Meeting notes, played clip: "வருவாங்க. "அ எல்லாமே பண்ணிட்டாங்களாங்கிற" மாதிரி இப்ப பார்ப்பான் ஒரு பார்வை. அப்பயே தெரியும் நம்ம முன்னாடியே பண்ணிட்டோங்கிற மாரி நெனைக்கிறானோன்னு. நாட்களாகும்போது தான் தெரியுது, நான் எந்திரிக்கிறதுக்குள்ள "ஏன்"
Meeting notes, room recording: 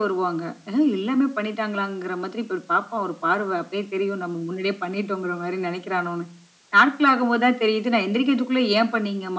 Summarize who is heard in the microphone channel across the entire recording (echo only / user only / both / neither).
echo only